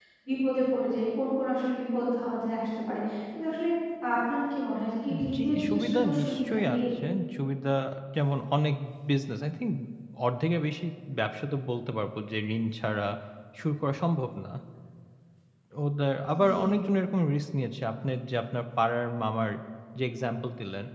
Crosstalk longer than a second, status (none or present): present